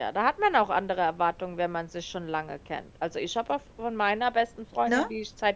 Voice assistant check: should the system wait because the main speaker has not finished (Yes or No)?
Yes